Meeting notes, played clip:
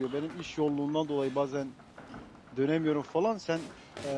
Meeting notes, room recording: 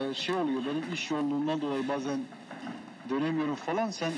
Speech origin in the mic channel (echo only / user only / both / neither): echo only